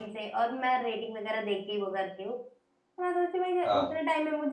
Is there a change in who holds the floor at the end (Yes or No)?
No